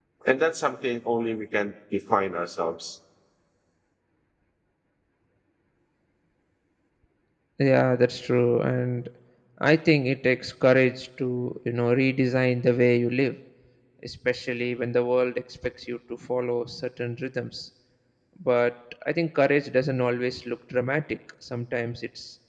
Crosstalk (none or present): none